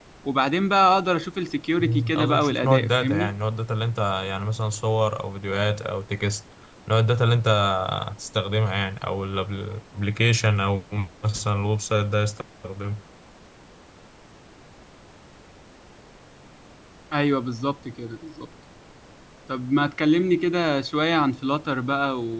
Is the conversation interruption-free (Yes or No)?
No